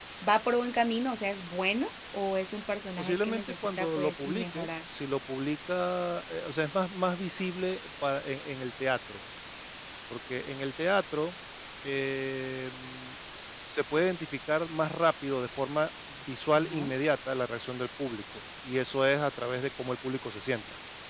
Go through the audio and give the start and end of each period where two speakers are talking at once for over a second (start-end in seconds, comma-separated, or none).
3.0-4.7